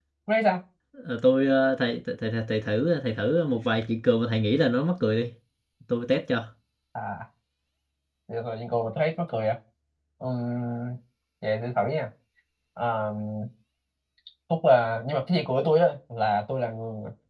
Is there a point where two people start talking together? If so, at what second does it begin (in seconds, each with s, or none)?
none